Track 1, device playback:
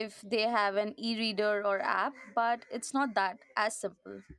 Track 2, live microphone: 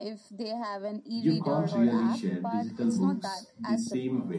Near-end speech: present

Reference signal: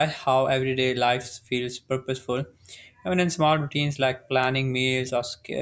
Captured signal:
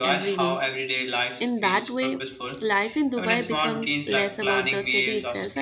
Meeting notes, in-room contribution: present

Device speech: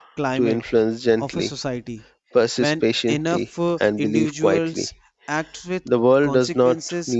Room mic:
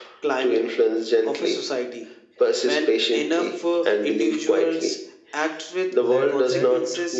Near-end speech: present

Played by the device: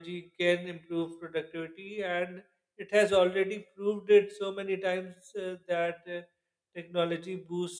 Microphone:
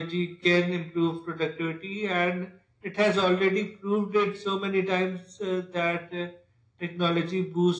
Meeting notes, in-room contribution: none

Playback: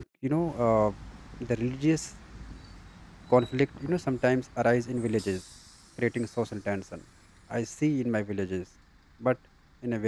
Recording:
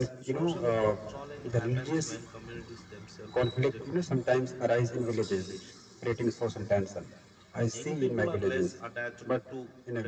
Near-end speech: present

